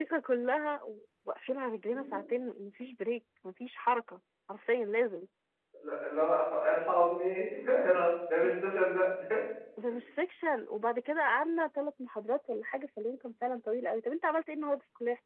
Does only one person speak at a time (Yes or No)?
Yes